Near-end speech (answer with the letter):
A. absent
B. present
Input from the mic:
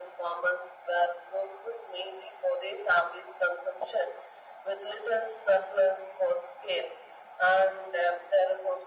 A